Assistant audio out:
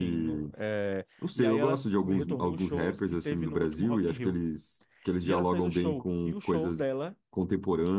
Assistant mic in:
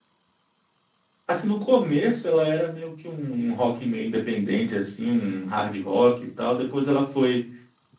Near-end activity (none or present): present